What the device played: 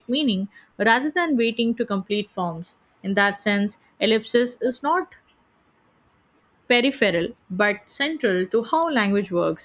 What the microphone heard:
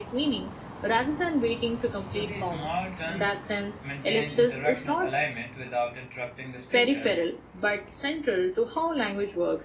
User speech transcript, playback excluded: So these small turns maintain interactional alignment without interrupting the speaker.

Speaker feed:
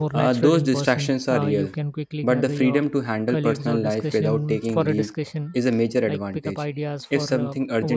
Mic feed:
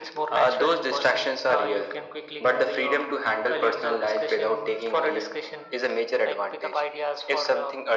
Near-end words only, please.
none

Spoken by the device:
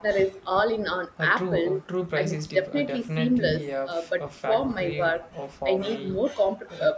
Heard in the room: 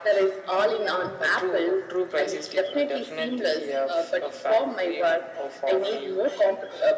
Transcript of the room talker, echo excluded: Oh, yeah.

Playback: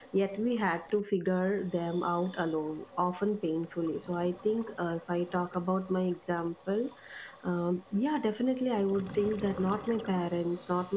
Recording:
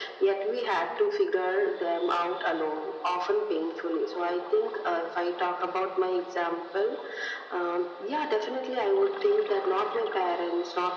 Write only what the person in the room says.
none

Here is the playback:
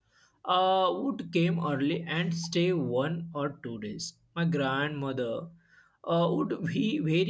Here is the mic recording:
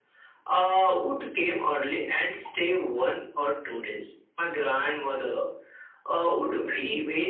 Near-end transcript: none

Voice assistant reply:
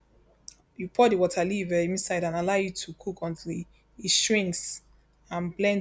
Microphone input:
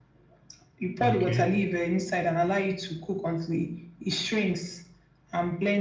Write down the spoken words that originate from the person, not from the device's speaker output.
okay.

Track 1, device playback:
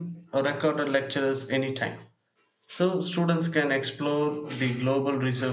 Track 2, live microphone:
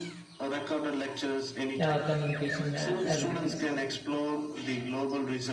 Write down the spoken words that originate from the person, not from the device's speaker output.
uh, communication uh, abilities,

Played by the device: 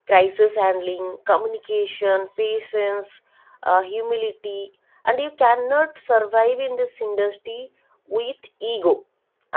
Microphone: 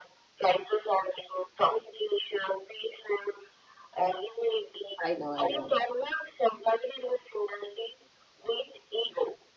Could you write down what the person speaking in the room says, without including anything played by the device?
I know, I know.

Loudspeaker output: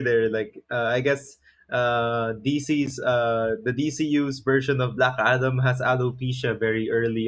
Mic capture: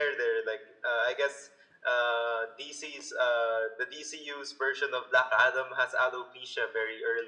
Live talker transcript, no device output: none

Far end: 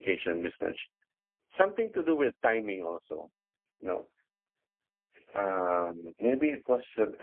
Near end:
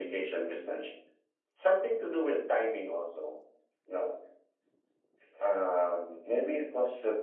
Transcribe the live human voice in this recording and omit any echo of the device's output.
none

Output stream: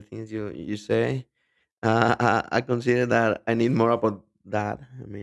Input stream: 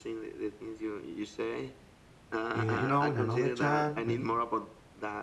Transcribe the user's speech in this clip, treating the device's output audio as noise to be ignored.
Uh, you know, in another time when

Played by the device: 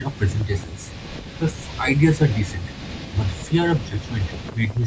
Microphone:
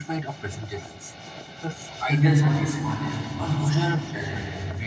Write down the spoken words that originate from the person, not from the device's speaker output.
when they are not the smartest or most talented.

